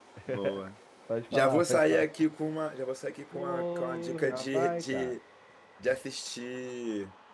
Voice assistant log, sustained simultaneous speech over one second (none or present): present